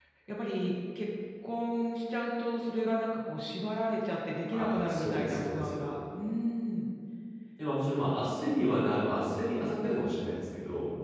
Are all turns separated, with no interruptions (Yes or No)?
No